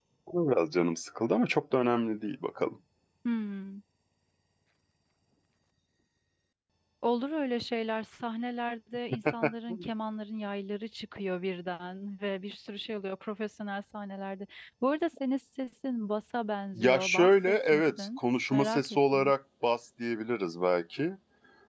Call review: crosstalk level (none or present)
present